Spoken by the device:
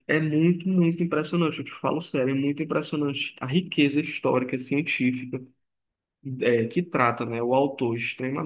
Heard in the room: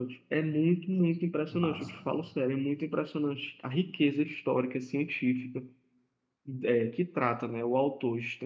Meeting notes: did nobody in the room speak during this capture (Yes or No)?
No